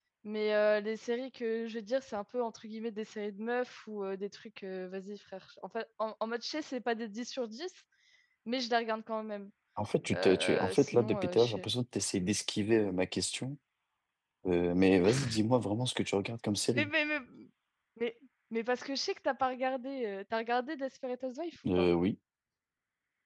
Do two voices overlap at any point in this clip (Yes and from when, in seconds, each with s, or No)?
Yes, from 10.1 s